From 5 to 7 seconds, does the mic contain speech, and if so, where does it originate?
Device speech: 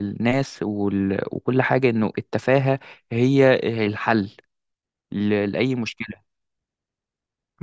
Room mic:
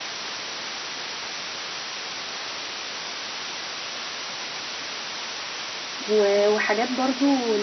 user only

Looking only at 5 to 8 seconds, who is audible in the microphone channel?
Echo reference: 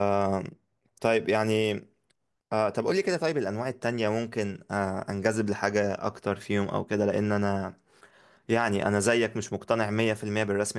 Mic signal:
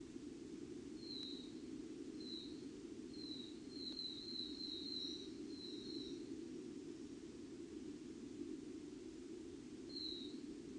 neither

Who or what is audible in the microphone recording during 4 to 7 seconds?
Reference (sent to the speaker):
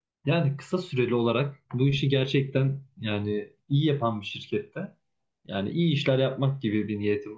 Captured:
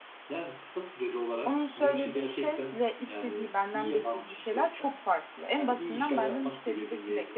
both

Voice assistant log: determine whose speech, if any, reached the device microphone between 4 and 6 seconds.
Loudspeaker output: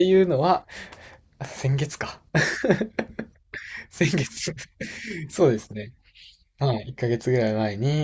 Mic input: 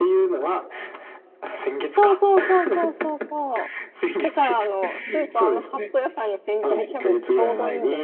both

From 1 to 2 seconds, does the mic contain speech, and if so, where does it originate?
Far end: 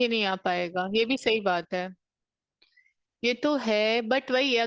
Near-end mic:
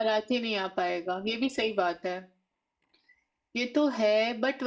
echo only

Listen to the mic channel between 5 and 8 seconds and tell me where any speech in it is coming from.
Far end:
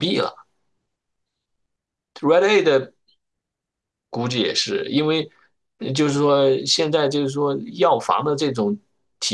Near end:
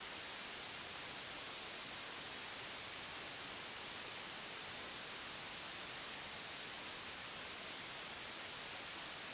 neither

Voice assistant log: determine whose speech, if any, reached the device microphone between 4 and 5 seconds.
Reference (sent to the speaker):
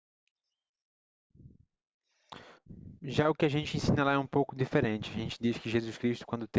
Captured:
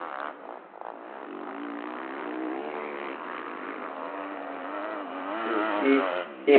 neither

